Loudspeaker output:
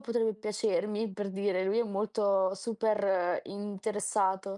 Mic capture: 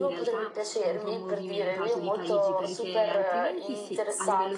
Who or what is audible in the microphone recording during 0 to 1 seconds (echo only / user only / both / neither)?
both